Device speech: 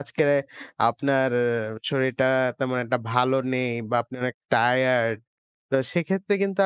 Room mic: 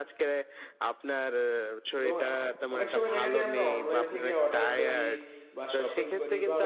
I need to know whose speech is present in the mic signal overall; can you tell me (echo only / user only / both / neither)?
both